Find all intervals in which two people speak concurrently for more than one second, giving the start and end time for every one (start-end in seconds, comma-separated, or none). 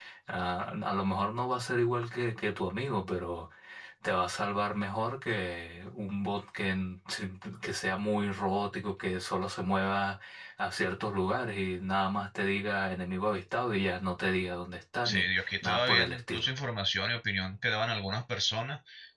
15.0-16.5